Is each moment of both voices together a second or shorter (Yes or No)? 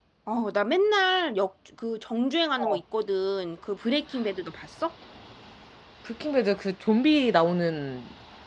Yes